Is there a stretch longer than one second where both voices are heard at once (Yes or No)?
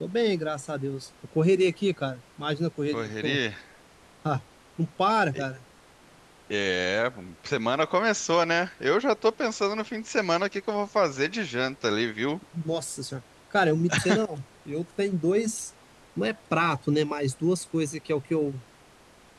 No